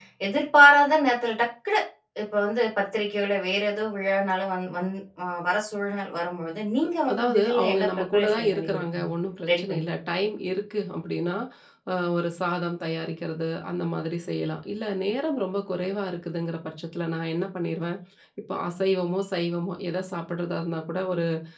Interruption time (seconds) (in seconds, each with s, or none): 7.1 s